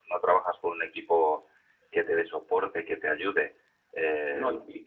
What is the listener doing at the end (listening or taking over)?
listening